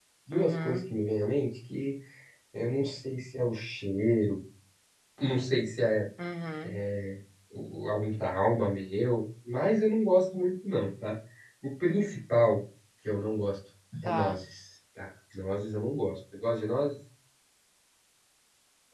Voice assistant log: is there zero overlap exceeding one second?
Yes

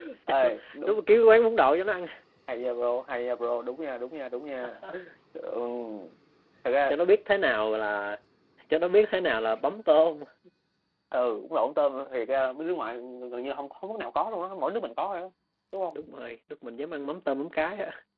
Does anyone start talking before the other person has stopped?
No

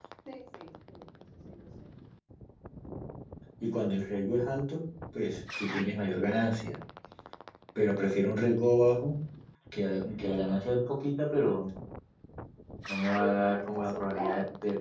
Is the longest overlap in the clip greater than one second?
Yes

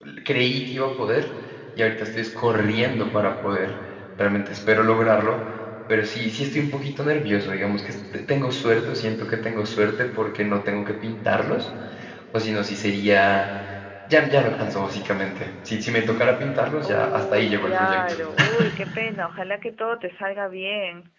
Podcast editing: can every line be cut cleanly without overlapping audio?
No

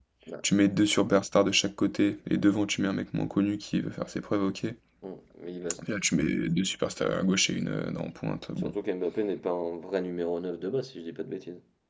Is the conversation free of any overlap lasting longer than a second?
Yes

